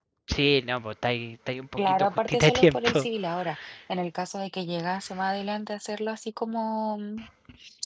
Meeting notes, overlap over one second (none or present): present